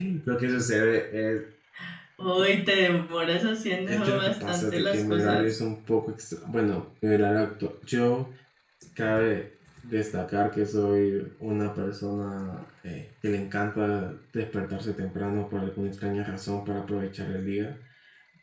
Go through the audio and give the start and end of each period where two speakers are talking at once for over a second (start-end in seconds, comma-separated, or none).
3.9-5.5